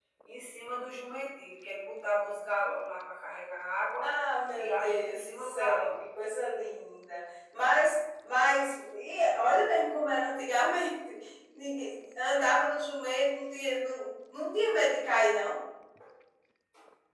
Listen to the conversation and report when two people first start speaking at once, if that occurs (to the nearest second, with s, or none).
5 s